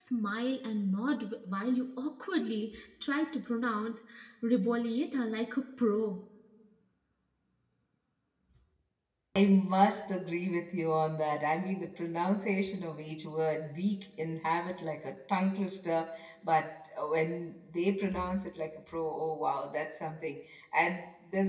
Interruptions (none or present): none